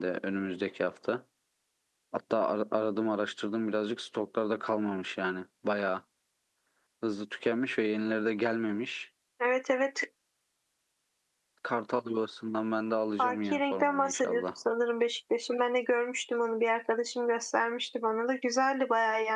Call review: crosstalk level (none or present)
present